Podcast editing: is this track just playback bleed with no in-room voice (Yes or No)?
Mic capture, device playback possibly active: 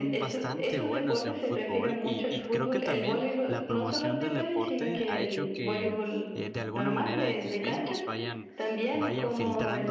No